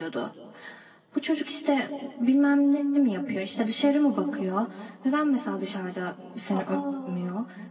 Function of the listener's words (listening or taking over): listening